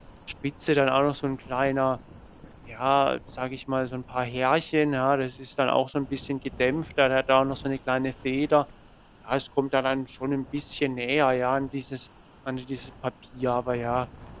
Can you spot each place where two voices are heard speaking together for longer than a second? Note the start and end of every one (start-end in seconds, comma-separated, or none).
none